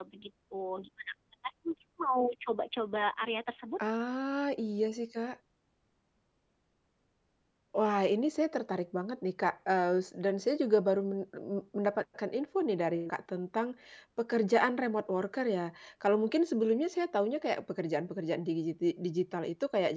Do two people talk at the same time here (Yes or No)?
No